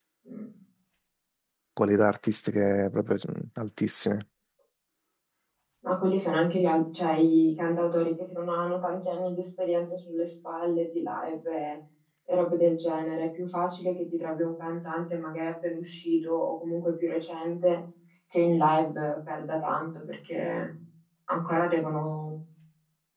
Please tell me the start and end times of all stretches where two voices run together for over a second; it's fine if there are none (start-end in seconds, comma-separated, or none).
none